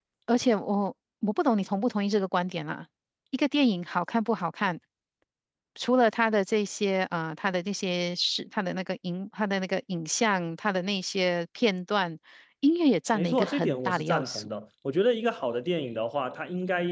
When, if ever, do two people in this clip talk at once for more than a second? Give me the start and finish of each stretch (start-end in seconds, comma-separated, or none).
13.1-14.5